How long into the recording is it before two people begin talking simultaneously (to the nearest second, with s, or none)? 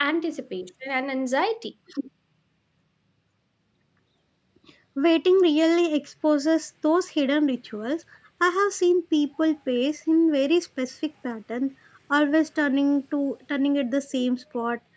none